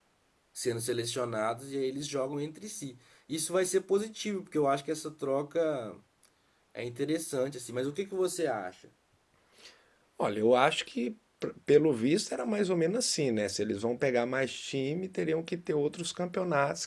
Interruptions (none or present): none